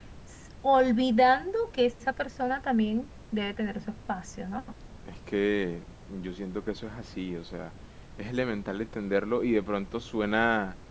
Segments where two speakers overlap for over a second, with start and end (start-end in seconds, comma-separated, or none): none